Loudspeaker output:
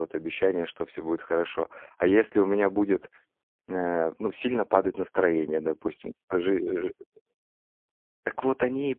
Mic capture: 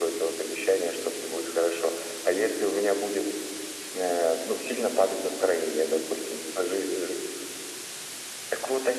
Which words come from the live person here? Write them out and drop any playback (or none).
none